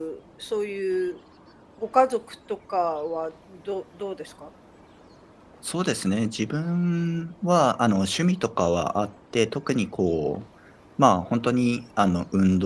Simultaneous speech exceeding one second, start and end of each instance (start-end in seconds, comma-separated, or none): none